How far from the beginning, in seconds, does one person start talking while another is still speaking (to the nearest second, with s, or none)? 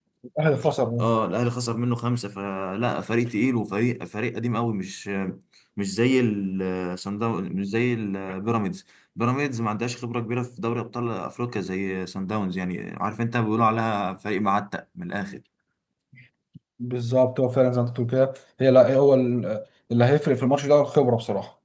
none